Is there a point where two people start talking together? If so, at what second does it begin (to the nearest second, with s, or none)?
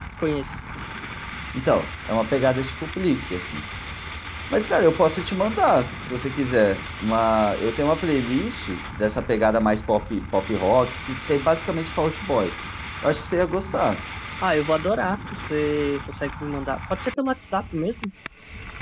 none